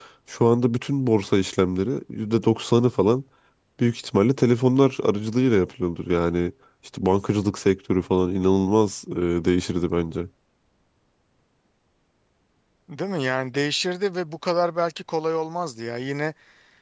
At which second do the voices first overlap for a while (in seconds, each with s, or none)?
none